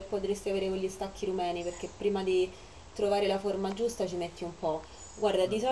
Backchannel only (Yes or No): Yes